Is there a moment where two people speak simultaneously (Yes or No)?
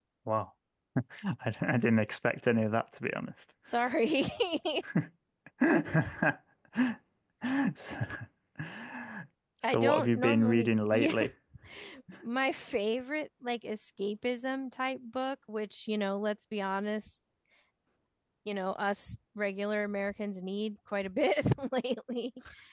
Yes